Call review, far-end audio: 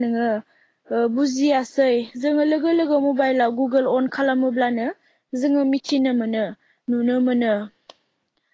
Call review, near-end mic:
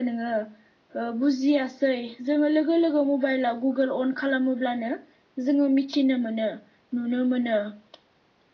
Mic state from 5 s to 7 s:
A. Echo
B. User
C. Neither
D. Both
A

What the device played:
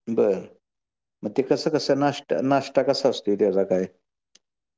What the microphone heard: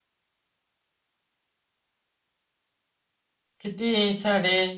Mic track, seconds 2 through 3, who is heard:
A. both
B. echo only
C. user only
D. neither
D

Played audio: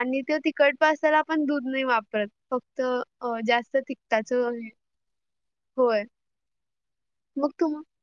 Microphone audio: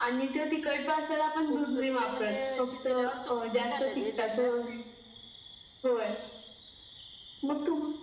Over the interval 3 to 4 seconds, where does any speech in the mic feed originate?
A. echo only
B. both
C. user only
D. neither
B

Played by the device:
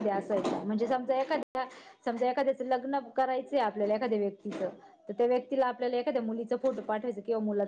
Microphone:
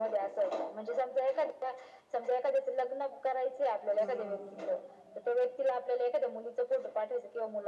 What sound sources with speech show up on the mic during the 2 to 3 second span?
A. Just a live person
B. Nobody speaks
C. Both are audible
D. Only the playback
D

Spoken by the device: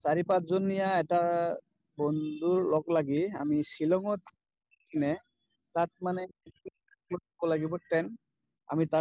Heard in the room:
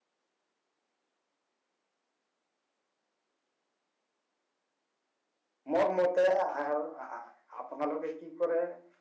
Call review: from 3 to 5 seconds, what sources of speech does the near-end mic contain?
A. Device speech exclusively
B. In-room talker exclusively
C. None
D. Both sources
C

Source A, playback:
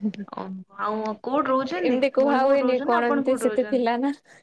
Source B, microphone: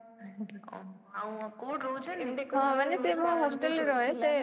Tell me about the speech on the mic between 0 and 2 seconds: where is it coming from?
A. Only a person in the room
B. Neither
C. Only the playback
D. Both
C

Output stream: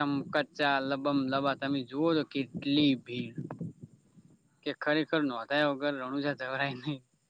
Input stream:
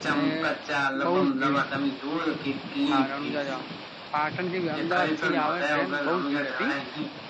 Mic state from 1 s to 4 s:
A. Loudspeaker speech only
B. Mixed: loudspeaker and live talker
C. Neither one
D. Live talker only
B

